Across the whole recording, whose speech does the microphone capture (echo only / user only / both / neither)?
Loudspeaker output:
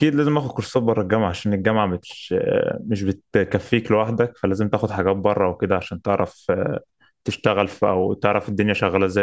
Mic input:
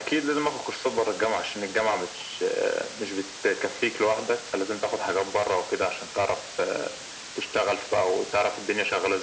echo only